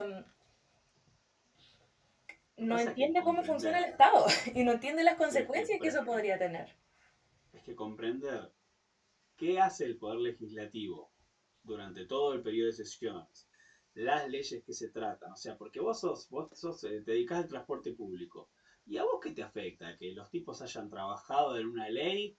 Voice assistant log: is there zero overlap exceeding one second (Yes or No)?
No